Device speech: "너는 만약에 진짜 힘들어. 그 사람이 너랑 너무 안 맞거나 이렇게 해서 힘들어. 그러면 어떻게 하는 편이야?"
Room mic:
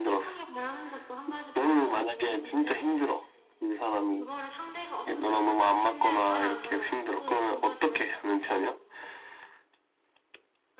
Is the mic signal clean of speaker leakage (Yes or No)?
No